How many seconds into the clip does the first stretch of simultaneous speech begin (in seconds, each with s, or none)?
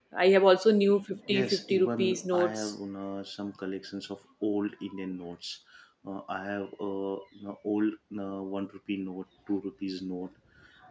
1.3 s